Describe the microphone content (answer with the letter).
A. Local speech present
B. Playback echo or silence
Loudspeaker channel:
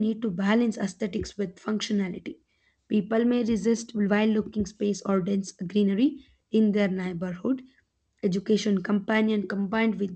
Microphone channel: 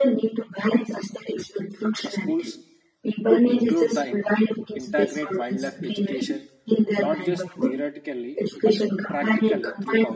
A